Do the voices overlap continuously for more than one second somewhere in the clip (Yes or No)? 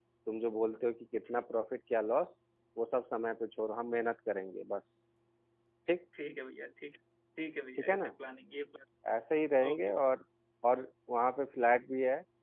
No